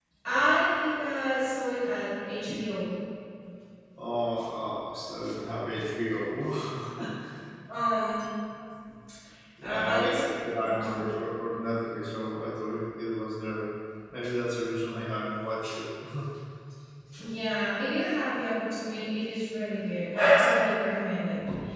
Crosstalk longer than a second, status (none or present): present